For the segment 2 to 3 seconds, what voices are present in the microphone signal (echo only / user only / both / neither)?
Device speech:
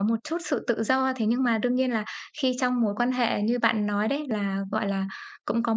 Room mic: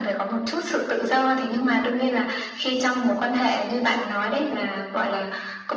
echo only